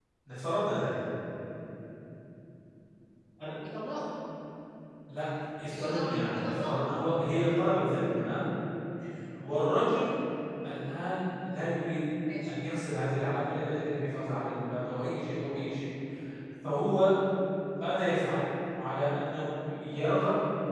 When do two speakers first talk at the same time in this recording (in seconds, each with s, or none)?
5.7 s